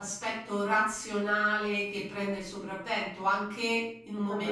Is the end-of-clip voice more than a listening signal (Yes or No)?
No